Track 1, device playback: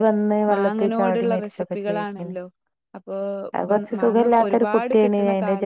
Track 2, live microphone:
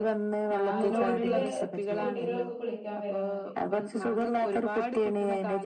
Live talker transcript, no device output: ആ കുളത്തില് കുട്ടികളൊക്കെ കുളിക്കാൻ വരാൻ മ

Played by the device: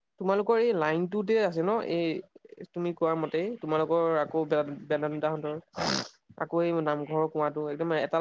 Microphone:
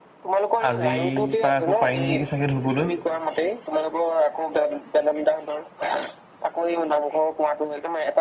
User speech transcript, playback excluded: আজিৰ পা আকৌ পাৰিম নেকি চাগে ধুবলৈ।

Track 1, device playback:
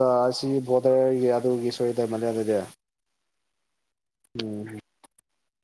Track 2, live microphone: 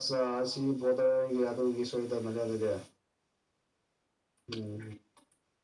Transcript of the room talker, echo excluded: none

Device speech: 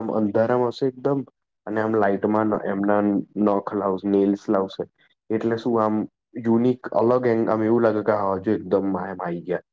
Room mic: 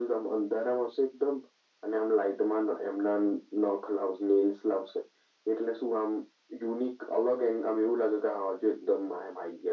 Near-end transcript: none

